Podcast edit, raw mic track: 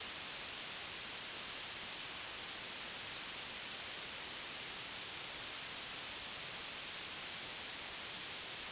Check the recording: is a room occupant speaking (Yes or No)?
No